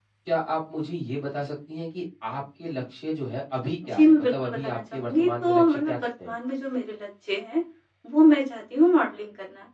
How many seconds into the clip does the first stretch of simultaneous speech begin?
3.8 s

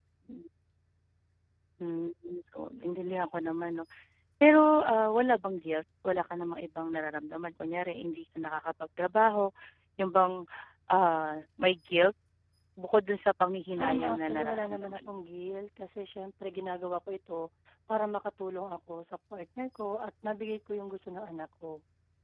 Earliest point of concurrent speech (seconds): 13.8 s

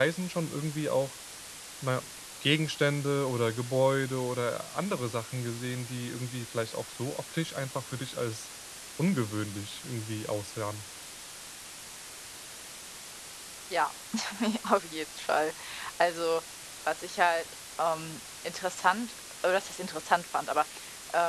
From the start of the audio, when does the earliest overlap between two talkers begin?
none

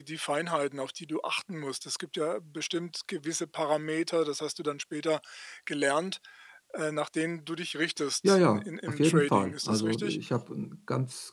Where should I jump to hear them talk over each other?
8.2 s

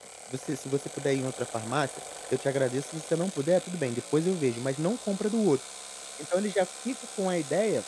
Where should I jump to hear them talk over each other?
none

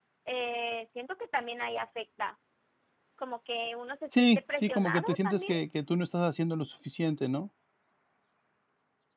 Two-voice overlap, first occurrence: 4.1 s

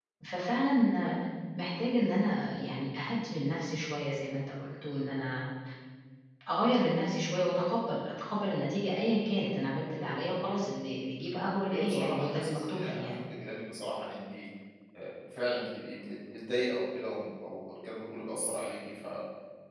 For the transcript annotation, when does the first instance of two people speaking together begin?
11.7 s

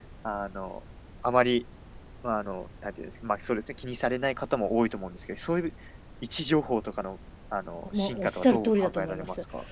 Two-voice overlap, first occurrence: 7.9 s

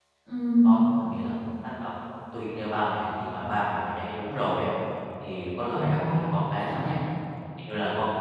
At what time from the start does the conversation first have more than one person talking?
5.7 s

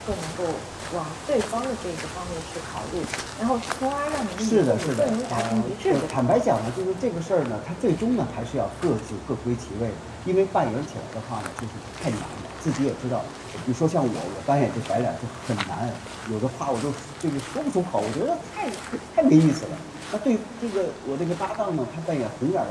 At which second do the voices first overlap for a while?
4.4 s

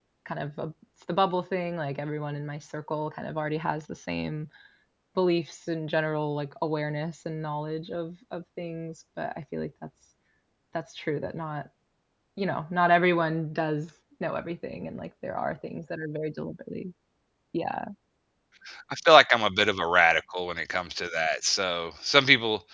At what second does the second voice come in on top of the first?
none

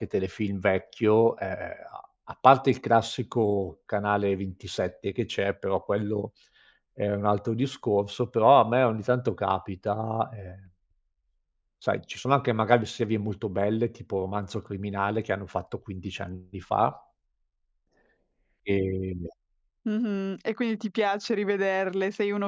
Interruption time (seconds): none

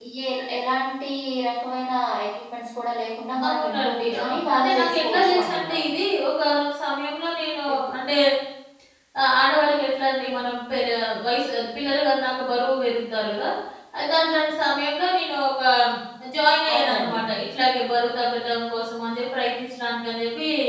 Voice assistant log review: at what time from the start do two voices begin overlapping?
3.5 s

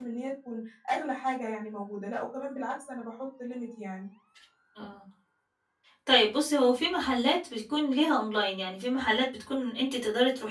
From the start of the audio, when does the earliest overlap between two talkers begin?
none

